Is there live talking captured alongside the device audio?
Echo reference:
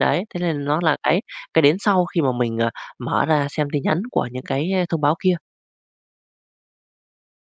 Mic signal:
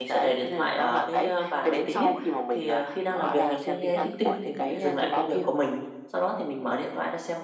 Yes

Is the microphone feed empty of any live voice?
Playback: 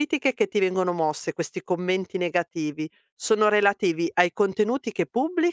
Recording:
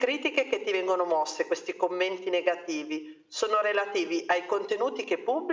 Yes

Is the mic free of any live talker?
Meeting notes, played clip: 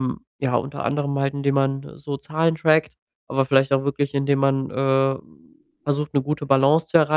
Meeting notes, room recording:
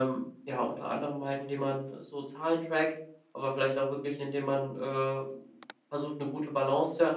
Yes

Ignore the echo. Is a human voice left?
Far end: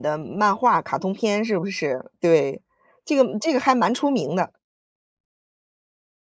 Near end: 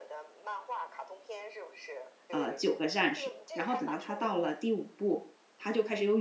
Yes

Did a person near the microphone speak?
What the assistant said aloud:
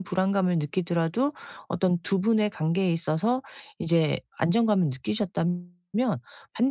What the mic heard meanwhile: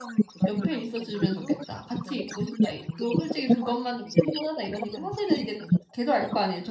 Yes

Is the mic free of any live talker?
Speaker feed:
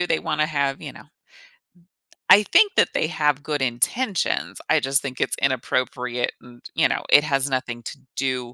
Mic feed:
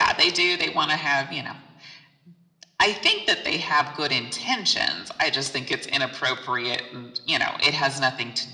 Yes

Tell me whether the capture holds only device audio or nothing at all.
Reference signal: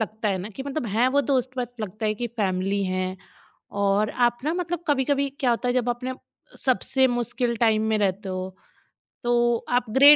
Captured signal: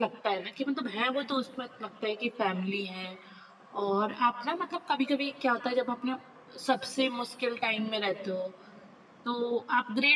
Yes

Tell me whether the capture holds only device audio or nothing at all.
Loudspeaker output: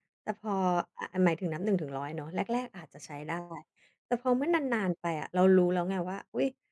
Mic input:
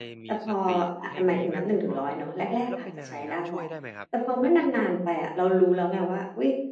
No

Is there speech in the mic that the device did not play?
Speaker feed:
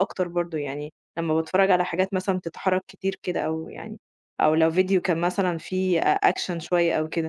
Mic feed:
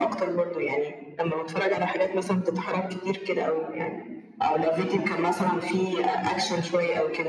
No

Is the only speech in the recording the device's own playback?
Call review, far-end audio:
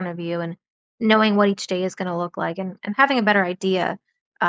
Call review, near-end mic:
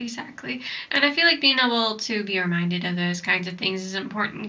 No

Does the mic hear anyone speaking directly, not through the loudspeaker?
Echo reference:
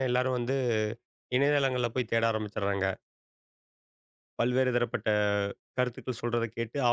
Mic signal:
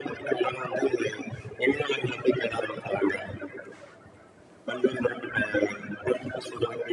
No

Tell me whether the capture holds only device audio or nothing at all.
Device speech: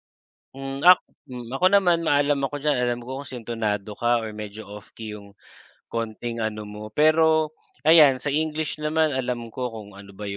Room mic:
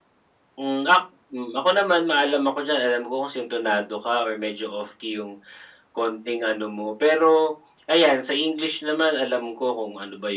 Yes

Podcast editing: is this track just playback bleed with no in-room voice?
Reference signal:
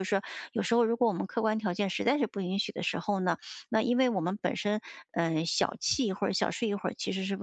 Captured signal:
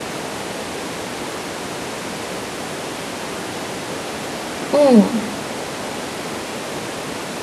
No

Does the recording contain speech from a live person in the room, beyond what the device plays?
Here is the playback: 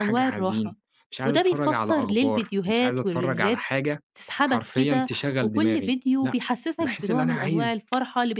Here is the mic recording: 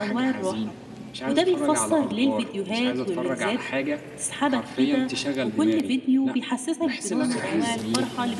Yes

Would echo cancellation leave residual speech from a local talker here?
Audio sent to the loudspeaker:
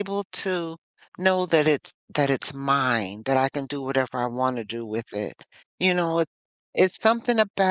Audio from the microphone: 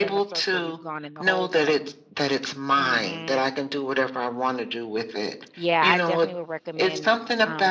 Yes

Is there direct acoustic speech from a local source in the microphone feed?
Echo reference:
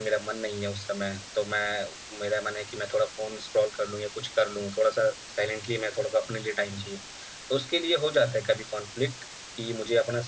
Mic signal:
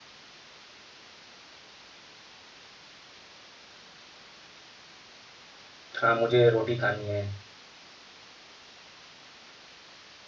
Yes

